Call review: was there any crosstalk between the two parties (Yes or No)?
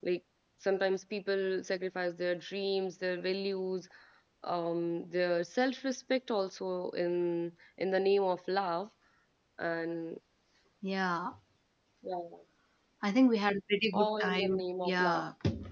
Yes